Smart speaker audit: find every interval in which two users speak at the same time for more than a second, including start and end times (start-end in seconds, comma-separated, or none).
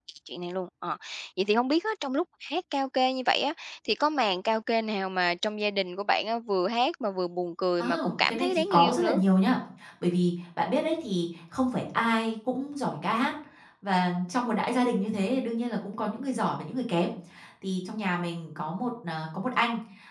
7.8-9.2